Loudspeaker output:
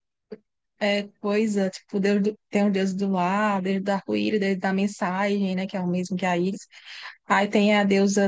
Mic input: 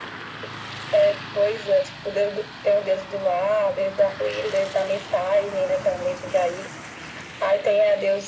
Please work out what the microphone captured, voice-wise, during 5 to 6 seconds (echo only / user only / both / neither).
echo only